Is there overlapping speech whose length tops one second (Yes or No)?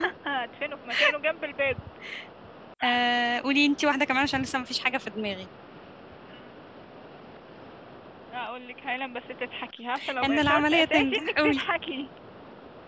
Yes